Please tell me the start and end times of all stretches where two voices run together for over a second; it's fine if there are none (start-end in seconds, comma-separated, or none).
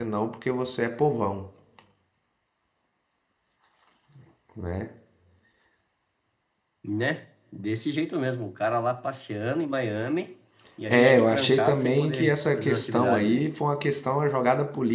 10.9-13.4